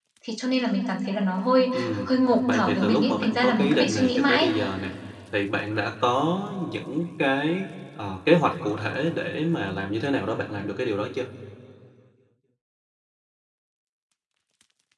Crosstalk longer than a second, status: present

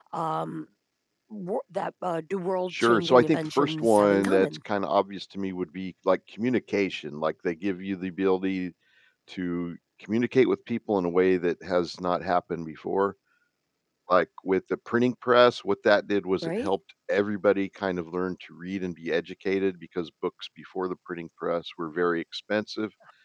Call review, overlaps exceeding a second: present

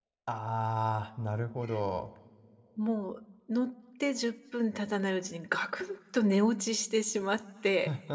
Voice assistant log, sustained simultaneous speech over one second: none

